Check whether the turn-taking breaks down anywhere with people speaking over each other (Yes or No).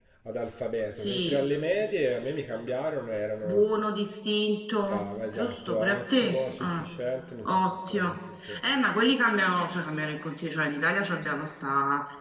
Yes